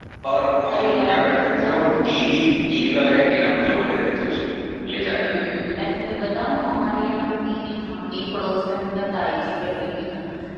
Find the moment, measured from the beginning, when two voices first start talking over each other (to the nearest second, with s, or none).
1 s